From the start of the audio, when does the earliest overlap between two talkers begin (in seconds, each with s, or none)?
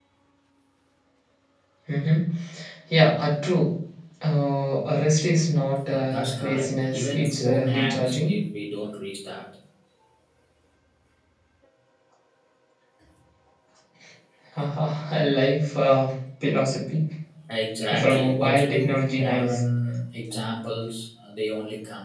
5.9 s